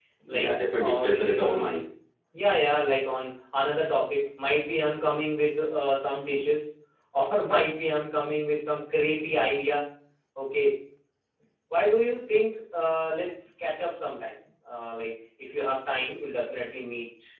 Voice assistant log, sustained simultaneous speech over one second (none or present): present